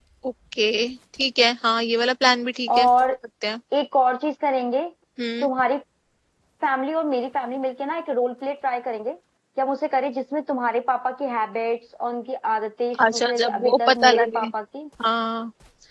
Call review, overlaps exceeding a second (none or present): present